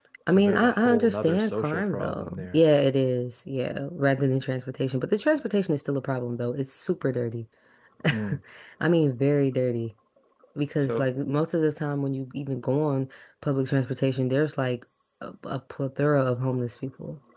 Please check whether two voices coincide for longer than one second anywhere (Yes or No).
Yes